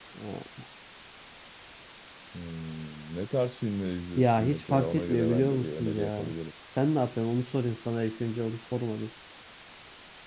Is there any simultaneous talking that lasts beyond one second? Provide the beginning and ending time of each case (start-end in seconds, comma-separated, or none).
4.2-6.3